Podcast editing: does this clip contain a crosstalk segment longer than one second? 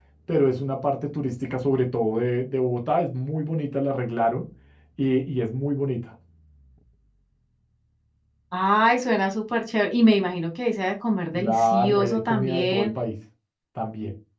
Yes, from 11.3 s

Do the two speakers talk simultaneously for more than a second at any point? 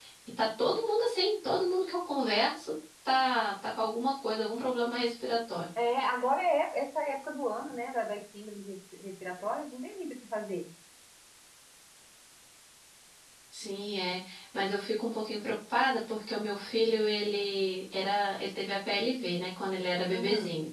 No

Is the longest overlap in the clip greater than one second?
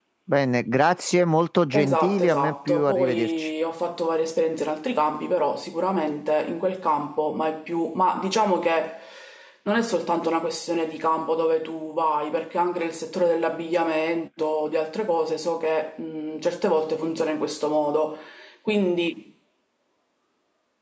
Yes, from 1.7 s

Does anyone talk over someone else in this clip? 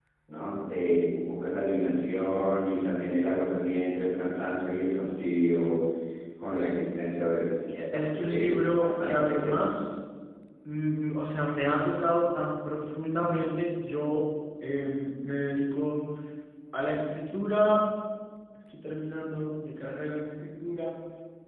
Yes, from 7.7 s

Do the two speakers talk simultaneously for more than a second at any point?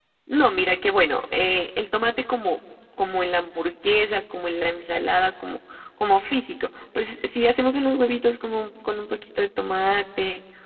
No

